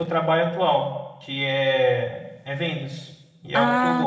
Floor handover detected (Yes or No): Yes